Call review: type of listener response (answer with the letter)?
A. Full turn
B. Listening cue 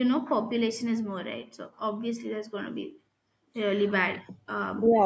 A